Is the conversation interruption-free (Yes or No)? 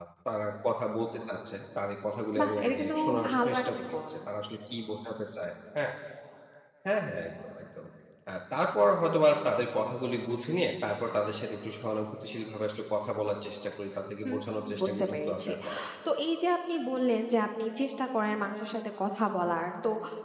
No